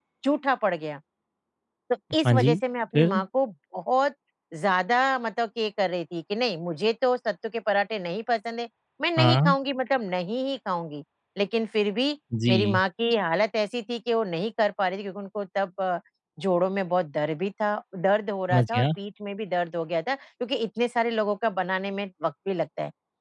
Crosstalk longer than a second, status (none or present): none